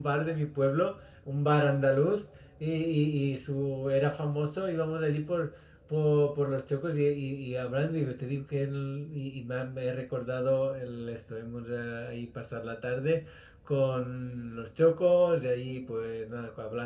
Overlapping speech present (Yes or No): No